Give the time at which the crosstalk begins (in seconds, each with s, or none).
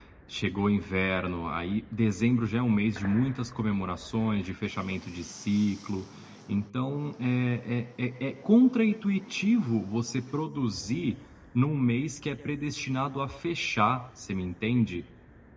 none